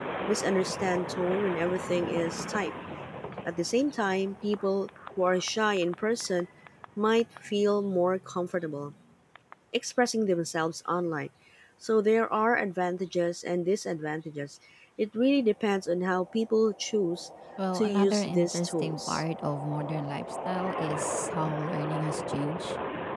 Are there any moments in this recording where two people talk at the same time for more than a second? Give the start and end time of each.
17.7-19.2

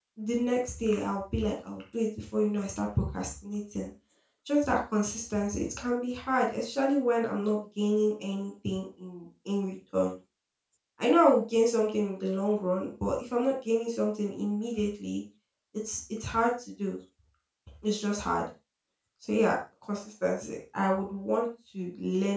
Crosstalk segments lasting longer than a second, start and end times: none

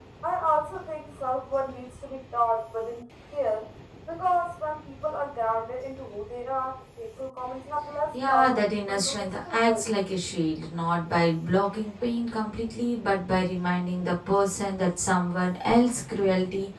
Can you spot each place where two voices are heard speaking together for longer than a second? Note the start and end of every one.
8.3-9.8

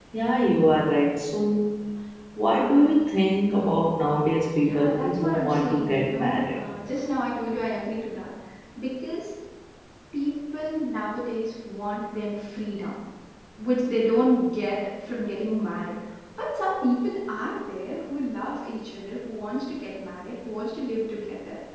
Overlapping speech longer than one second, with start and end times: 4.6-6.6

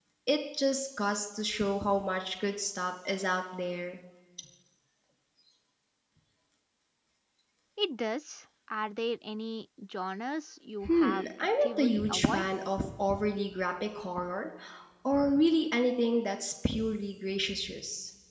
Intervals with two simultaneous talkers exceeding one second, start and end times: 10.9-12.5

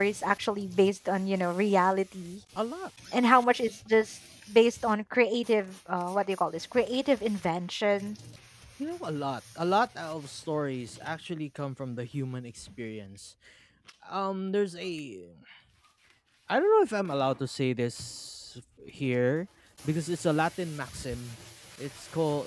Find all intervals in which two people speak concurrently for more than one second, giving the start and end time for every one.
none

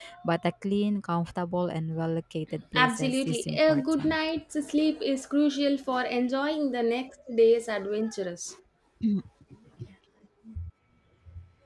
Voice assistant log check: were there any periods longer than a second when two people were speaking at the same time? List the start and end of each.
2.8-4.2

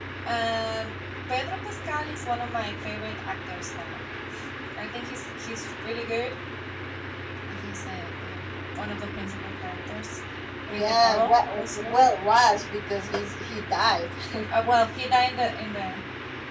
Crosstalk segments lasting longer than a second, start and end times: 10.8-12.0

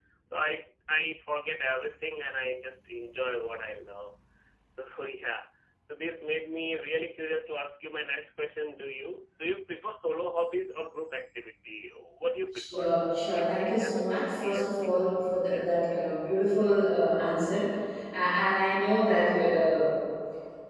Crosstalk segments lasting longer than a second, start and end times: 13.3-15.1

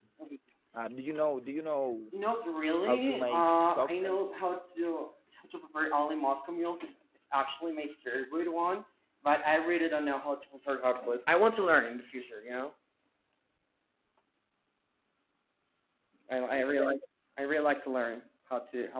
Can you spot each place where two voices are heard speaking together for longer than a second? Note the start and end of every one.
2.9-4.2

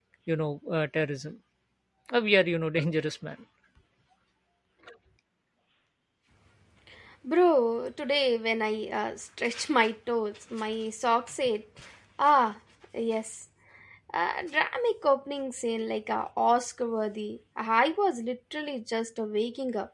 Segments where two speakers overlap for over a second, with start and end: none

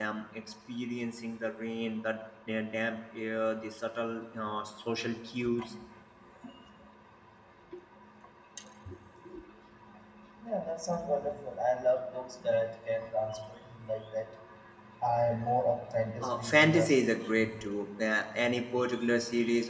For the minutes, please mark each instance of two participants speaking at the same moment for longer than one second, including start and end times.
16.2-17.5

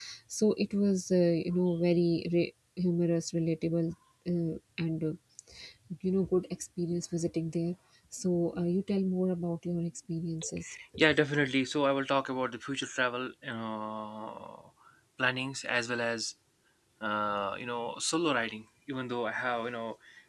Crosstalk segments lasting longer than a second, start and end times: none

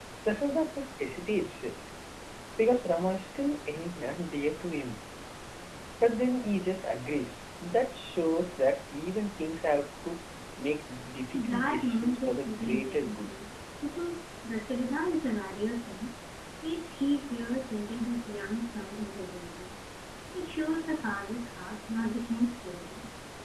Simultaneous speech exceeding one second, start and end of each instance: 11.3-13.3

